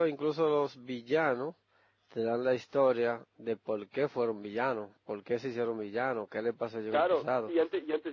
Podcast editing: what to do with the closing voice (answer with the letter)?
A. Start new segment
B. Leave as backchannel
A